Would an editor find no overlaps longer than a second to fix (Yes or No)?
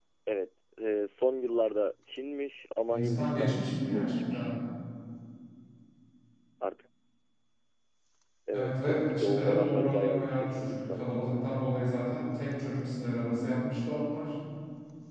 No